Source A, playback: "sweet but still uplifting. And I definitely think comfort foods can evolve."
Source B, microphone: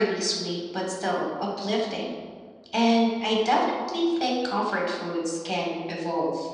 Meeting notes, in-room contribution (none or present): none